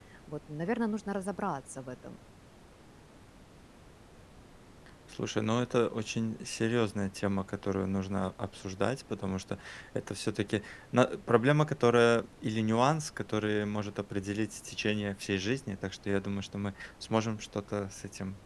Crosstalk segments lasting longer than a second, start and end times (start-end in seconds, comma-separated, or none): none